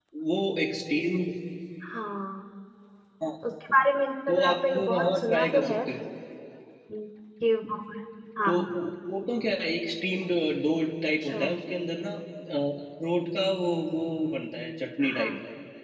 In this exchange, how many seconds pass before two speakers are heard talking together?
4.3 s

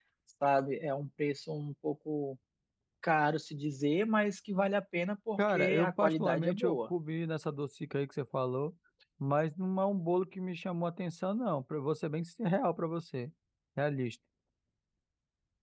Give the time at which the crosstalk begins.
5.4 s

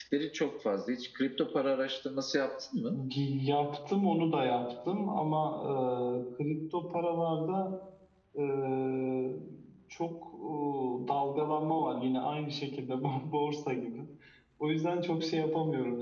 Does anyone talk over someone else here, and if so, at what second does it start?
none

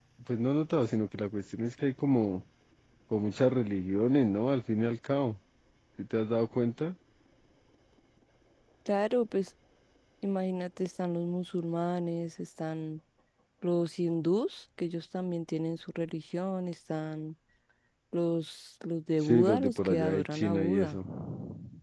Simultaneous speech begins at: 19.2 s

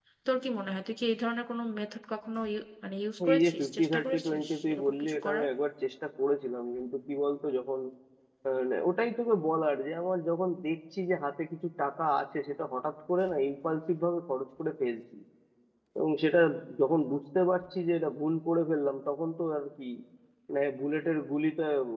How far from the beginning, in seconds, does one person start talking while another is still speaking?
3.2 s

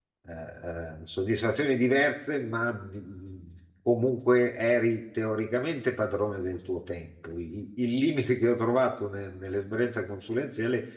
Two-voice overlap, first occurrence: none

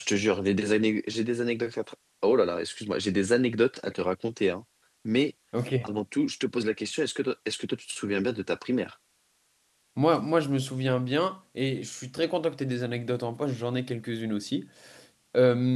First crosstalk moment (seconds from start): none

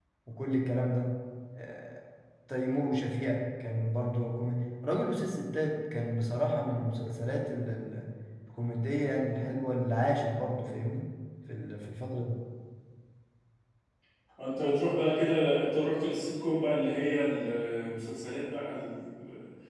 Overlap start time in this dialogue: none

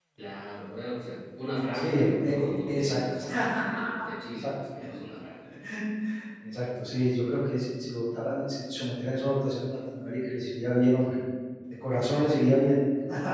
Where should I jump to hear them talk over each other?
1.7 s

